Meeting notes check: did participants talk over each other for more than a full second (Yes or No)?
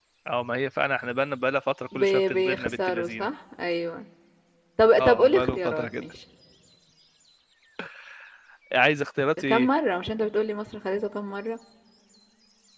Yes